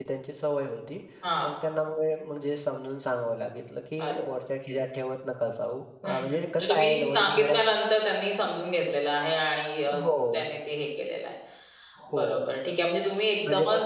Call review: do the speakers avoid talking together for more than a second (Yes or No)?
No